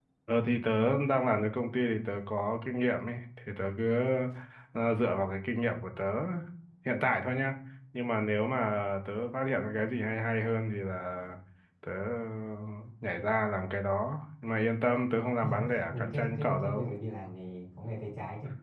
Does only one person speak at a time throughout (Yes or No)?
No